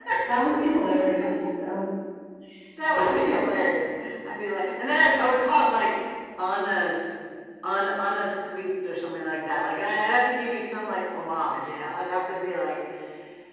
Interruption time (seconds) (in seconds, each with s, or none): none